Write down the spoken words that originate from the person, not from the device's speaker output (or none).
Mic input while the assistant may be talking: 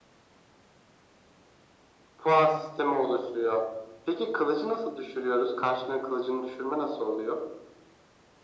none